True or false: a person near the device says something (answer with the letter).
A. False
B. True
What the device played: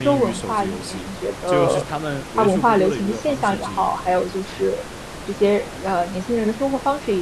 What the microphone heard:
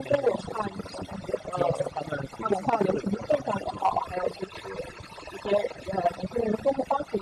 A